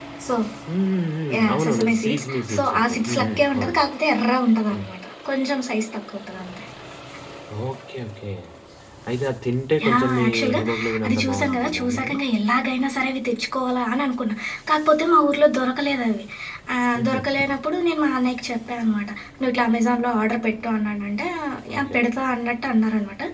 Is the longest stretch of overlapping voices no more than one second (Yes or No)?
No